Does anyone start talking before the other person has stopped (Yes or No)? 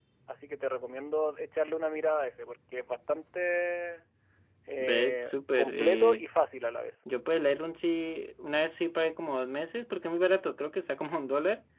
Yes